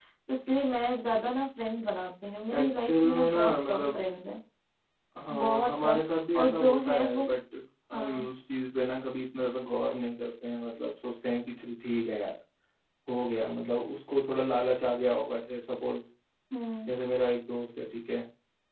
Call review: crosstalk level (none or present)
present